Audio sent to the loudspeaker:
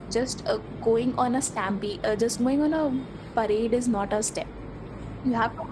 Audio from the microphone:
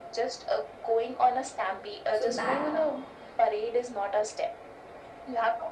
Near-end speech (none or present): present